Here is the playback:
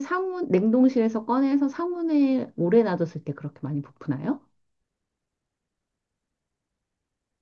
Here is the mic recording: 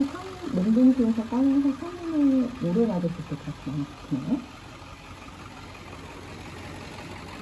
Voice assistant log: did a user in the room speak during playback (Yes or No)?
No